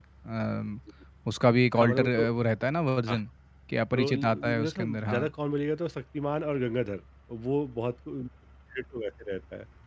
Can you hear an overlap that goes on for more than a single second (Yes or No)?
Yes